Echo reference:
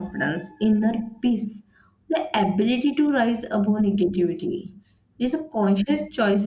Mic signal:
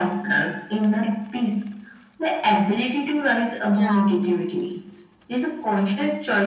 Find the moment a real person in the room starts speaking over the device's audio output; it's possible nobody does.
3.7 s

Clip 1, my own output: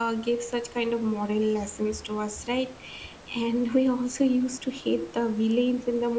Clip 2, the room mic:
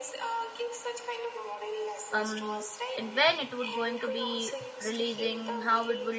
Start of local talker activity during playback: 2.1 s

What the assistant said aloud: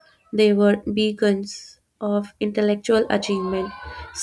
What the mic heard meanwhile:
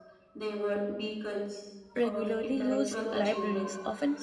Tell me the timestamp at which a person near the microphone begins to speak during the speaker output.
2.0 s

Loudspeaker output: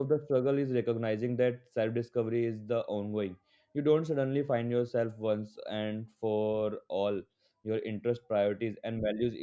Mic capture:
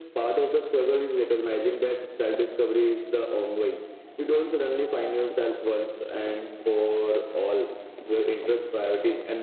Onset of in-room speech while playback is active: none

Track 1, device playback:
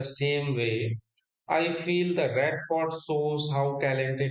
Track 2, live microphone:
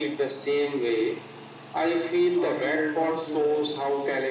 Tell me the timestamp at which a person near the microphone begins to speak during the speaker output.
2.4 s

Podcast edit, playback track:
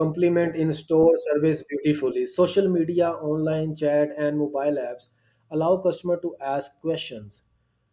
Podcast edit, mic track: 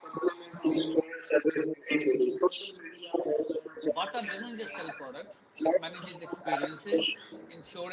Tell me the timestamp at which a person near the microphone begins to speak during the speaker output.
3.9 s

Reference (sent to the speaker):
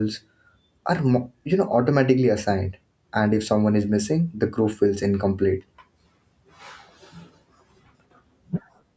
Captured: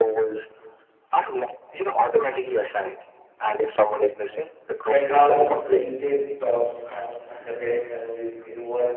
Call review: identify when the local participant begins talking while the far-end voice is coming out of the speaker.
4.8 s

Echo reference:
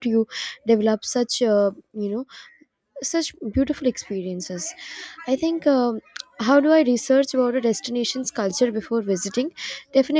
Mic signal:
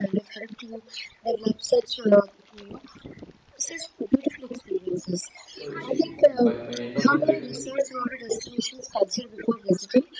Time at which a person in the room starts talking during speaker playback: 5.5 s

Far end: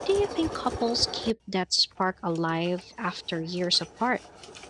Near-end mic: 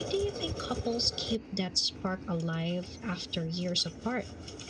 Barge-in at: none

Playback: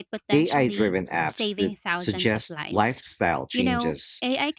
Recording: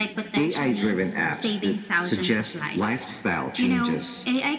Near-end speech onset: none

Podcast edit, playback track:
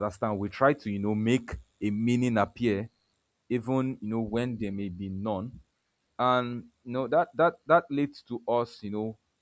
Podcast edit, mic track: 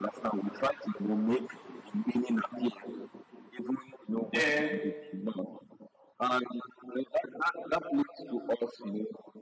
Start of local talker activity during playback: 4.3 s

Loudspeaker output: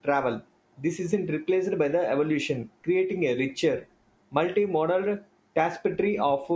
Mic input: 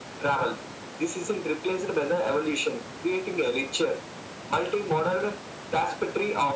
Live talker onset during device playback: none

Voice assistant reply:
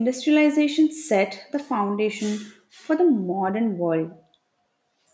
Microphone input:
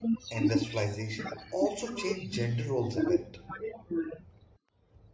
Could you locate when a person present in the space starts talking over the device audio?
0.3 s

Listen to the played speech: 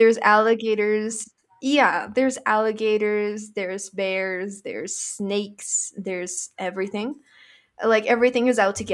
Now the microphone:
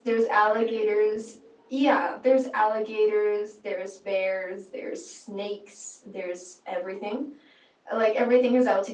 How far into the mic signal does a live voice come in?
0.4 s

